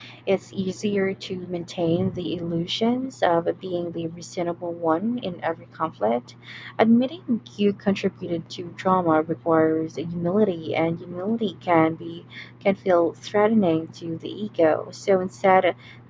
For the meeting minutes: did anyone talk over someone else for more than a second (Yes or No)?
No